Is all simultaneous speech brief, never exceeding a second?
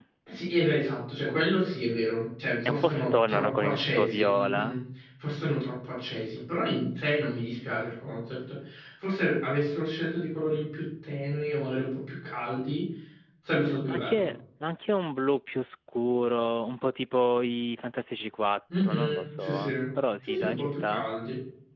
No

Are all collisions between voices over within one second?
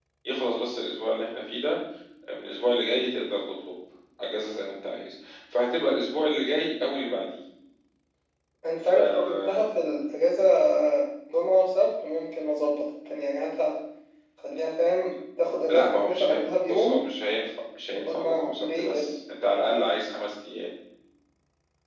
No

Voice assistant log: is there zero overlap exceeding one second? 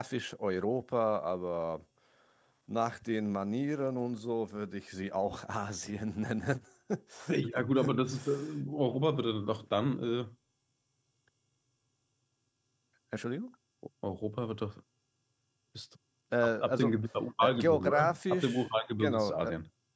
No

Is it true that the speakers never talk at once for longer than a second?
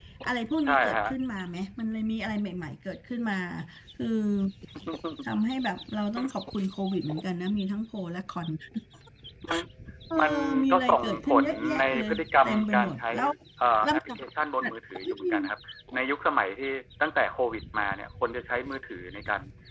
No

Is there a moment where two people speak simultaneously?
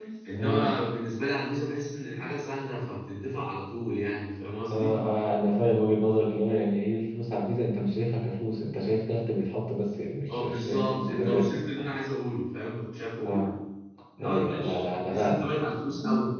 Yes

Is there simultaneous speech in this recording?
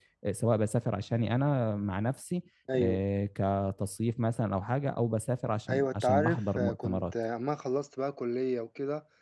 Yes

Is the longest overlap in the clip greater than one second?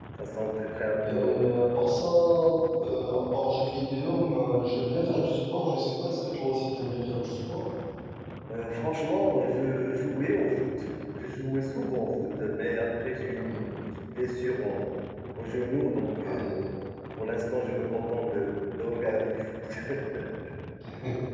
No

